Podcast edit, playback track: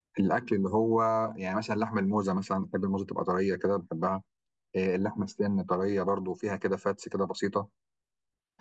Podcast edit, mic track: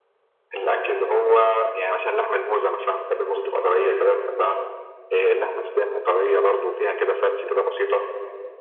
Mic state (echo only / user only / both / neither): echo only